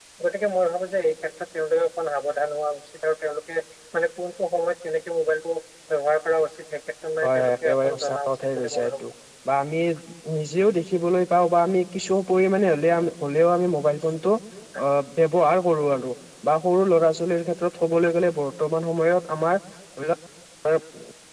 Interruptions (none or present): present